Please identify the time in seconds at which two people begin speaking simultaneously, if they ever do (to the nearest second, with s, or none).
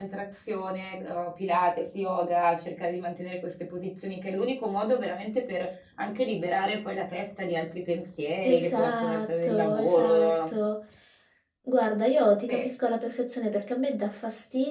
8 s